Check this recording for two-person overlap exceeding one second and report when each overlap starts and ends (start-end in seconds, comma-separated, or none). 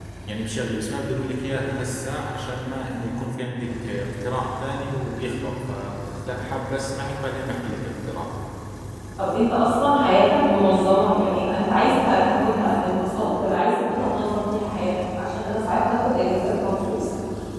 none